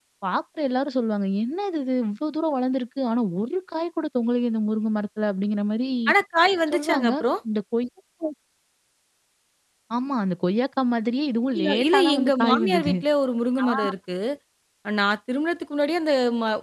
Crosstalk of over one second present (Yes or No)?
Yes